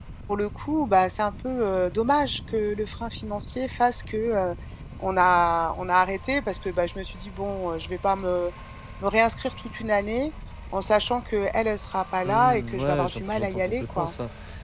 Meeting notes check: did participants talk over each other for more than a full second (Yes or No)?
Yes